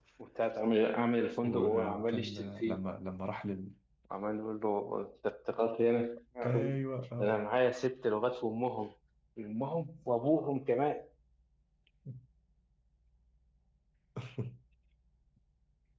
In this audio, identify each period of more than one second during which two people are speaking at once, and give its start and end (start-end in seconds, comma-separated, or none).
1.4-2.8